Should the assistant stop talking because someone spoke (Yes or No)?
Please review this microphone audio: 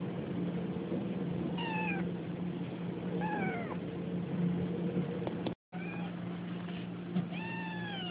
No